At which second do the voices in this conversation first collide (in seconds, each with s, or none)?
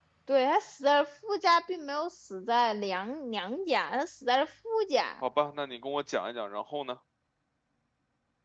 none